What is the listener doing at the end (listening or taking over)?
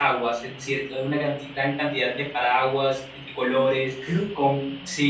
listening